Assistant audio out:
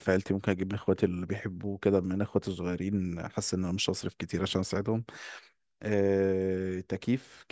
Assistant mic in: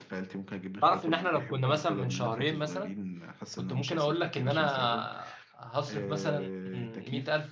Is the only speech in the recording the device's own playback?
No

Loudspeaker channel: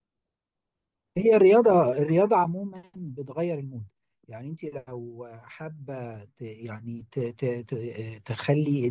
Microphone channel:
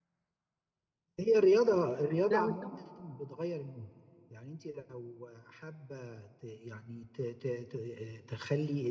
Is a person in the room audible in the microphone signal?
Yes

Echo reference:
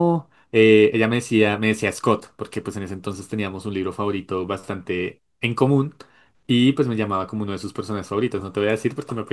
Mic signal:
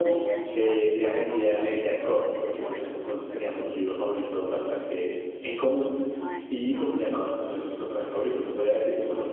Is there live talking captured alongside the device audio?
Yes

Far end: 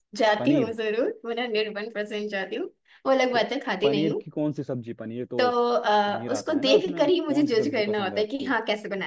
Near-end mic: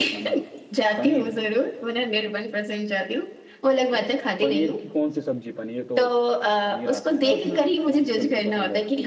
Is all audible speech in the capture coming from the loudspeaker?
Yes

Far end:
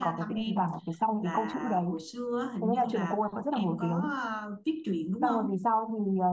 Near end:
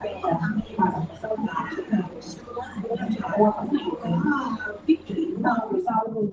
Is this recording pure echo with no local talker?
Yes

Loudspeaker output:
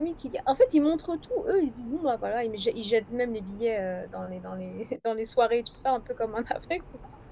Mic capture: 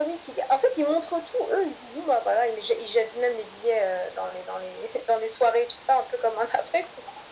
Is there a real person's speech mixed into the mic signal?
No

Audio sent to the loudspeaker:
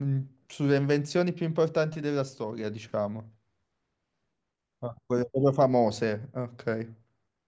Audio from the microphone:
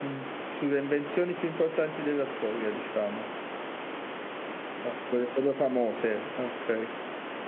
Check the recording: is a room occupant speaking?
No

